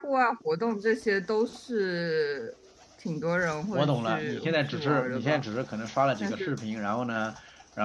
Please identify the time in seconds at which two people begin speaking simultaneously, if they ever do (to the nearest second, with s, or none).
4 s